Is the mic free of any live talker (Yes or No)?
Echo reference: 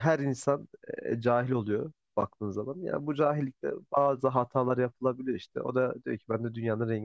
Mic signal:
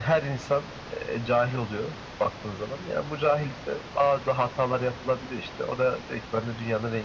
Yes